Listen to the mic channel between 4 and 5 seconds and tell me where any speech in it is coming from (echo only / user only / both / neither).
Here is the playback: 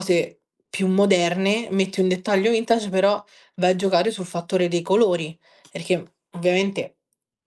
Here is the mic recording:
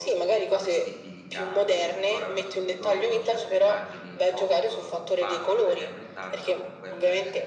both